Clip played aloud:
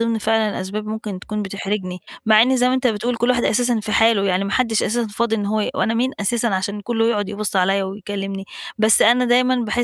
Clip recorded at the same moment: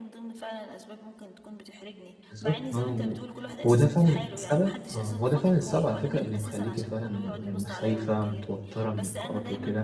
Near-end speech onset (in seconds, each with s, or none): 2.3 s